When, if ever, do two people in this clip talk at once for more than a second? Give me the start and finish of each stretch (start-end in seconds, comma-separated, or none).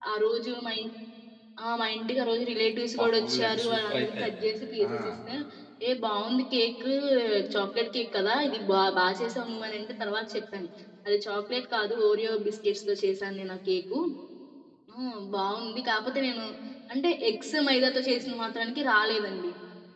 3.0-4.2